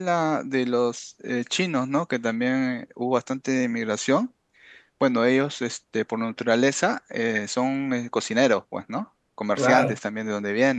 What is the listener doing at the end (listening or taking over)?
listening